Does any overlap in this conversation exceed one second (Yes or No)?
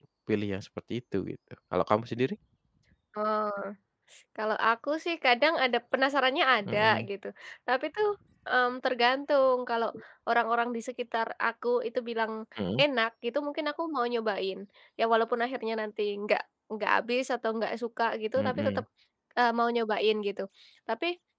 No